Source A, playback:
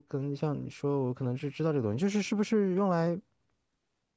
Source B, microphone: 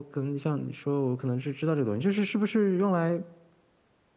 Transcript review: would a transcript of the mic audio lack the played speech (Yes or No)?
No